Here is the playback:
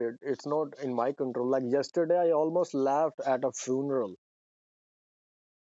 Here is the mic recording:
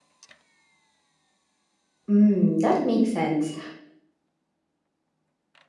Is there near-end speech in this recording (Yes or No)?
Yes